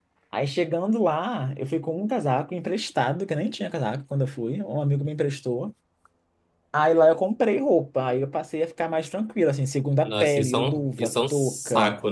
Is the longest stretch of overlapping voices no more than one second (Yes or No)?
No